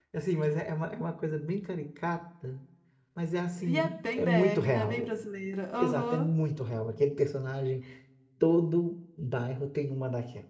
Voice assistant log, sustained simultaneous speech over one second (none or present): present